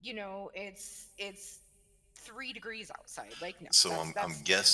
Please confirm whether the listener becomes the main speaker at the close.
Yes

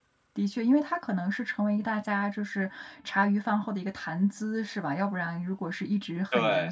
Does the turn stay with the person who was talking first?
Yes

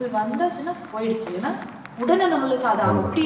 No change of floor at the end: Yes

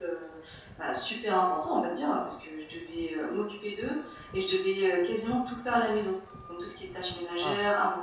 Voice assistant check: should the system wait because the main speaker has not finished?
Yes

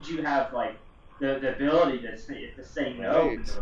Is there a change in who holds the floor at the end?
No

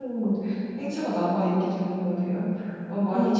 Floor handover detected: Yes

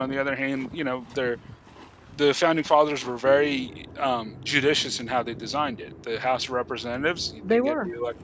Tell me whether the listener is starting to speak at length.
No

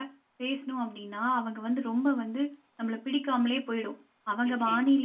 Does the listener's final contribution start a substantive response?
No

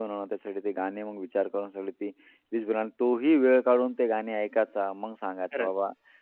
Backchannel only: Yes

